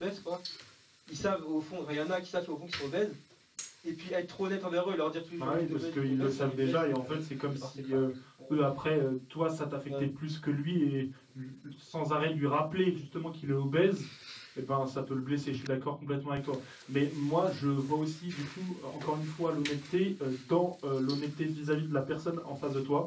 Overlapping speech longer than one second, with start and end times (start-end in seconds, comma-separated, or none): 5.4-7.2